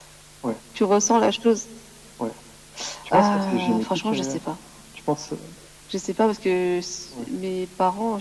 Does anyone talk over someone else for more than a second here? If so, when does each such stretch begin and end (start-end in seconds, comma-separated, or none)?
3.1-4.4